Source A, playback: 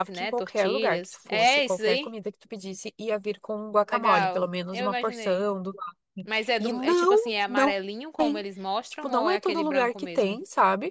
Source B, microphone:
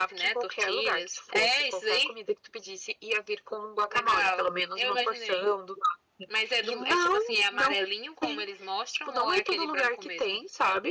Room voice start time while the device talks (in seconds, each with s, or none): none